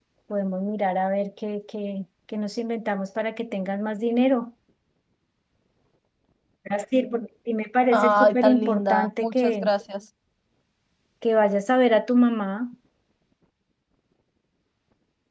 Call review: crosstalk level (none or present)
present